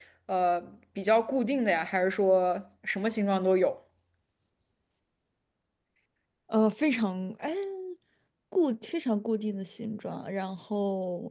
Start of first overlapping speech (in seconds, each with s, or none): none